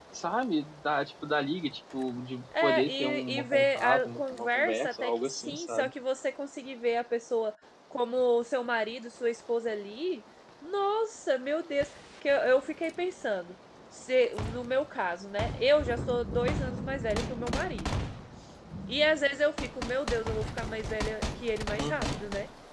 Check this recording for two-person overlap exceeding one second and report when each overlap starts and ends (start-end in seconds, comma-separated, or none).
2.6-5.9